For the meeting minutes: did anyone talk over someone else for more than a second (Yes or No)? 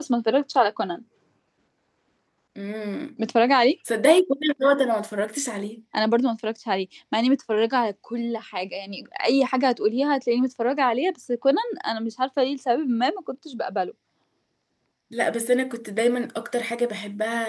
No